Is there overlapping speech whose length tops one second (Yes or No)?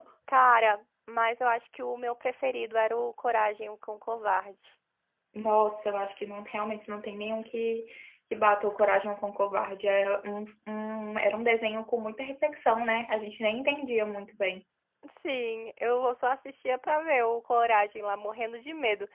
No